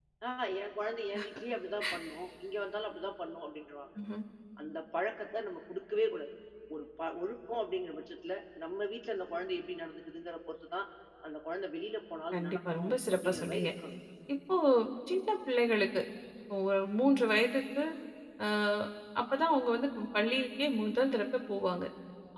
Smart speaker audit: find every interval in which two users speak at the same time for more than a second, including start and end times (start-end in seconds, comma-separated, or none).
12.3-13.7